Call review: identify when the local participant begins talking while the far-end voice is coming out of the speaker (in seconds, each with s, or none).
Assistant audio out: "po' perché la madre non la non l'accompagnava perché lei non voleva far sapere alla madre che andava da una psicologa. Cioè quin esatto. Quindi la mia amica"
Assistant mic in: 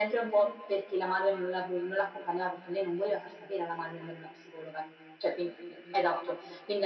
none